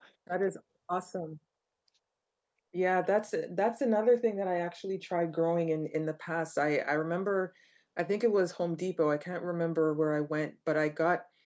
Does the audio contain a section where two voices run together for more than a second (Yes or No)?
No